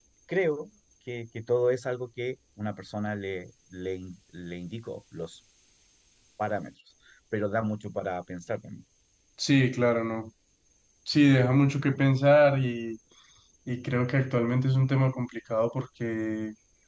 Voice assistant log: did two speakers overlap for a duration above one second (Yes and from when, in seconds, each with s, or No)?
No